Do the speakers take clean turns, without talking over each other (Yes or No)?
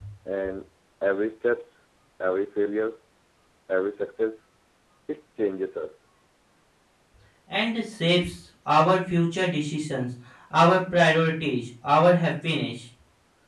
Yes